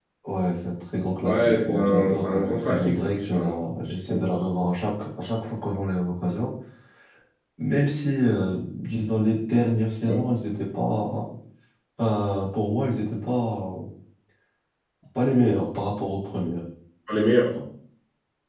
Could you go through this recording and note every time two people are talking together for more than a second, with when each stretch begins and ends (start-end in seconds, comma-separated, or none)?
1.2-3.5